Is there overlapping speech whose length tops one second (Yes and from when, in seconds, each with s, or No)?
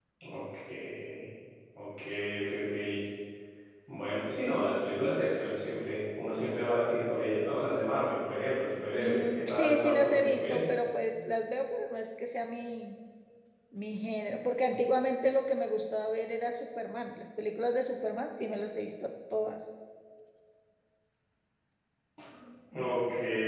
Yes, from 9.0 s